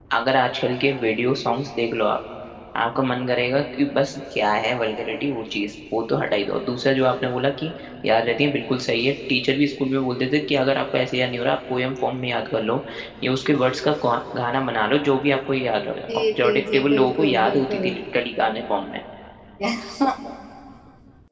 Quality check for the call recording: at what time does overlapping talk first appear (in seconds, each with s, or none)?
16.4 s